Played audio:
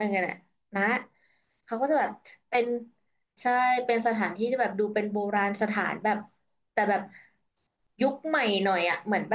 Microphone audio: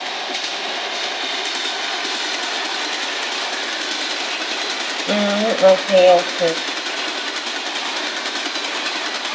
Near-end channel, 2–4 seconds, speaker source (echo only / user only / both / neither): neither